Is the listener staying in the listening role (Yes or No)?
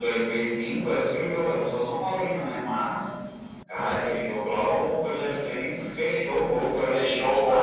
No